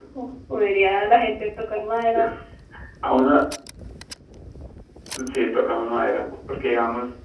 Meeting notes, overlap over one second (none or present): none